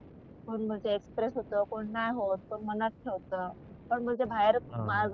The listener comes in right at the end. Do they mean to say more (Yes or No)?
No